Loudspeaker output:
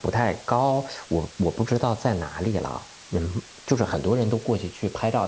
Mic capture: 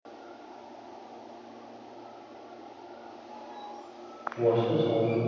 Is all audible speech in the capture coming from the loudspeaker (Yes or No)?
No